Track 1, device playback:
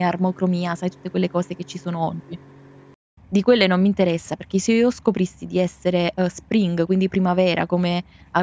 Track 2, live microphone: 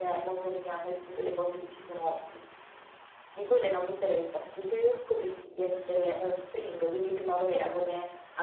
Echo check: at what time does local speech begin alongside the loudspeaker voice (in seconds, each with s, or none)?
none